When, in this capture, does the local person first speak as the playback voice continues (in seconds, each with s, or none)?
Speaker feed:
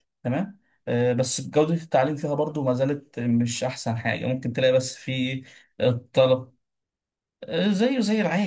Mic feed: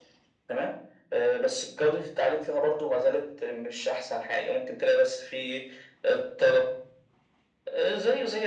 none